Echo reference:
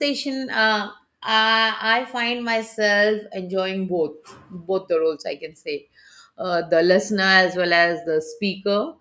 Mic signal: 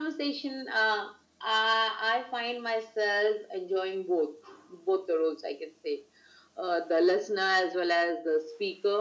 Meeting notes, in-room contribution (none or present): none